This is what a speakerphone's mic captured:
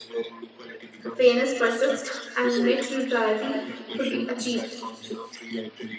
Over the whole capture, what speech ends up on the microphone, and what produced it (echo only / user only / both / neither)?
both